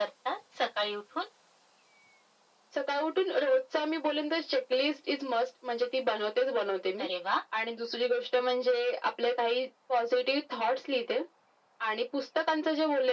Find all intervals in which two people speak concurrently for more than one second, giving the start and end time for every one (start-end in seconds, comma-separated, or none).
none